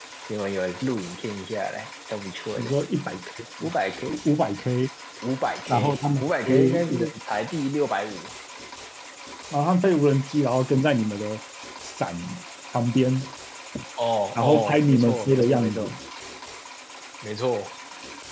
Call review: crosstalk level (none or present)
present